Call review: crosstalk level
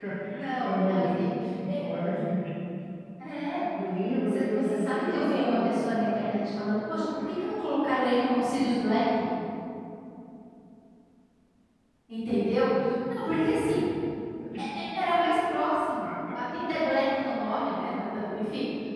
present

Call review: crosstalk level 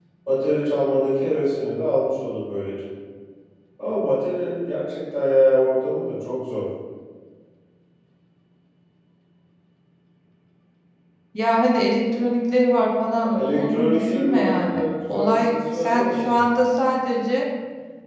present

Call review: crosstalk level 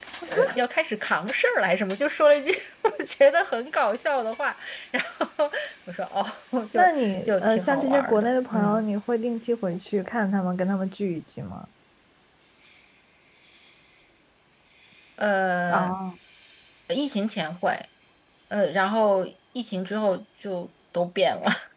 present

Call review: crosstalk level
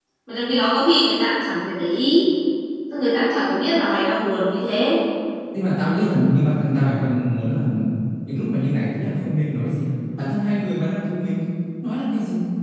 none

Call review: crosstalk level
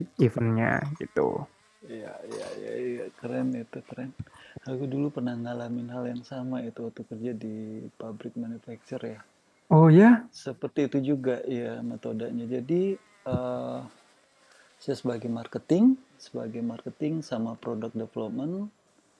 none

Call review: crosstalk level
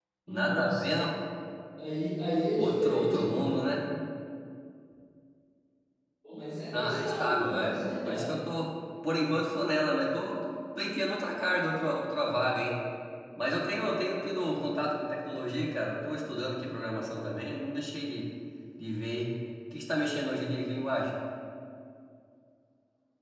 present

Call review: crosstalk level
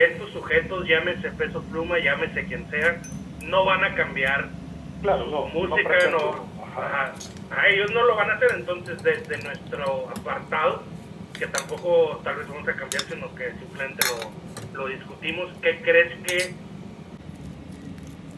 present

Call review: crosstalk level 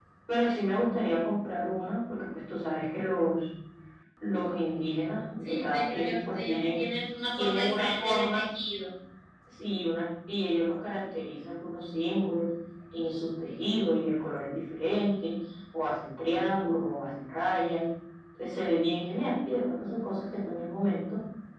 present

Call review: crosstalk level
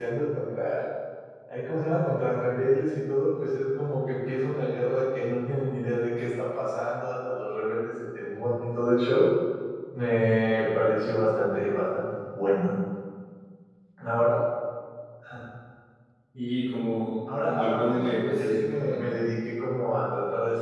present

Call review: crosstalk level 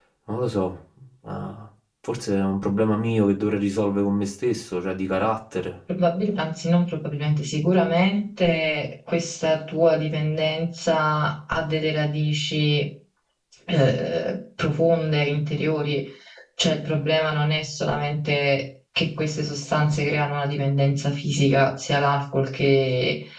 none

